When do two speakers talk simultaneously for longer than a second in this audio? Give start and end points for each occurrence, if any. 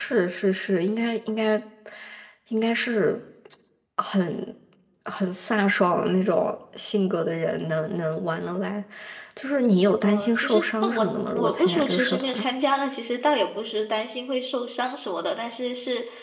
10.0-12.4

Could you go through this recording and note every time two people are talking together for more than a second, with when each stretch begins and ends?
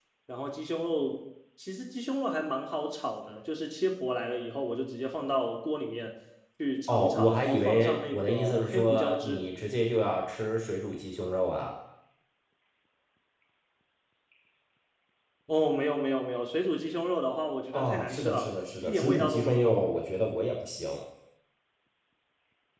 6.9-9.5, 17.7-19.8

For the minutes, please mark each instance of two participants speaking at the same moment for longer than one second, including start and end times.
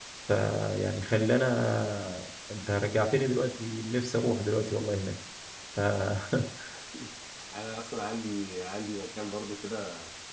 none

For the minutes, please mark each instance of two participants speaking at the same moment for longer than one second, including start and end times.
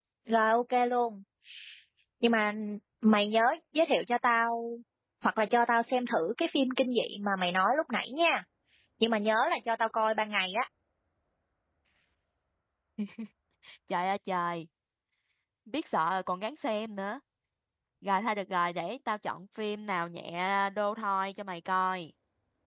none

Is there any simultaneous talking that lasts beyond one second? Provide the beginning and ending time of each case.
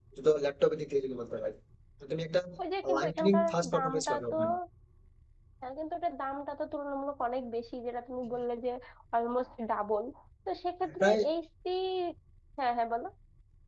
3.0-4.3

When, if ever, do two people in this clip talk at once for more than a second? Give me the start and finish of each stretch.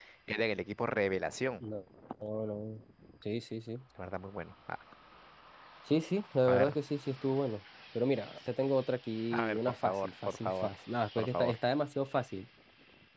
9.3-10.7

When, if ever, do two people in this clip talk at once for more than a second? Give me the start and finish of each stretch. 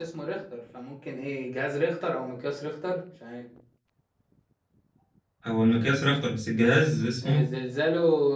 none

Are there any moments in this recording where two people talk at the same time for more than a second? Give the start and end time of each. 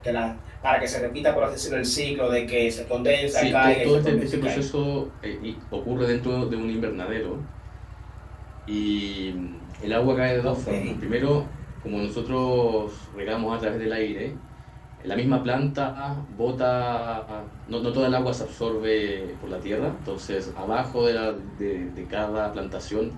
3.3-4.6

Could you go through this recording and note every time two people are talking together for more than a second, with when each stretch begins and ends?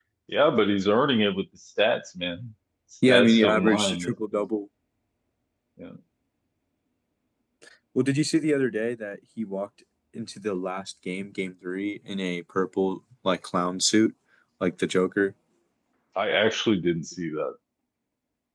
3.1-4.5

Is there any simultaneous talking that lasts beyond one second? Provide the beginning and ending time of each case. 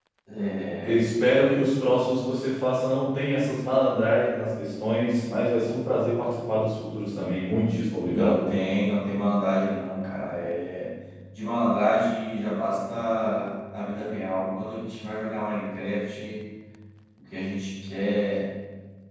none

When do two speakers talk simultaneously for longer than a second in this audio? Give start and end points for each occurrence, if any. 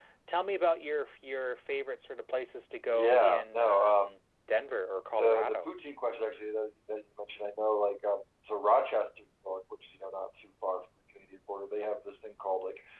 2.9-4.1

